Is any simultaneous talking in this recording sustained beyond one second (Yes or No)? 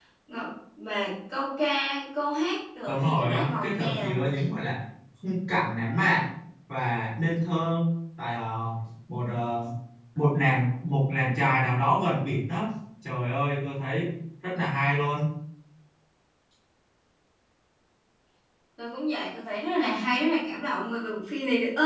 Yes